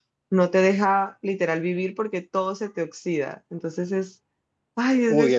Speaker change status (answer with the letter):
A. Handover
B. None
A